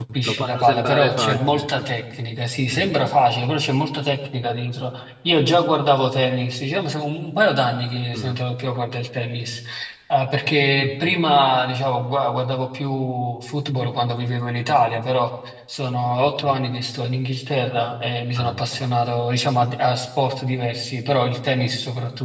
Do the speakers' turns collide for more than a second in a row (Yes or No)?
Yes